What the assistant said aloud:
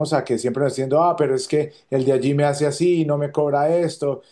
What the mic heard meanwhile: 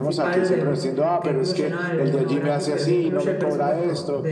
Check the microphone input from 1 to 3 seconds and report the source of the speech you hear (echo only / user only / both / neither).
both